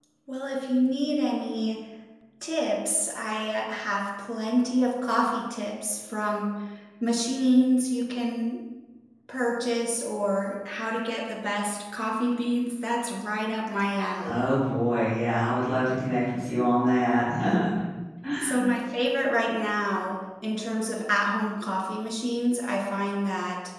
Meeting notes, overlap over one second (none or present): none